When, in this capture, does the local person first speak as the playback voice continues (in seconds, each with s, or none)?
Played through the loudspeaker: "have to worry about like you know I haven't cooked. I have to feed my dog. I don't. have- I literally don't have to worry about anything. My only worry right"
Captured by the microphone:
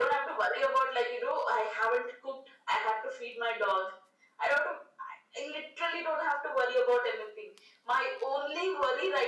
none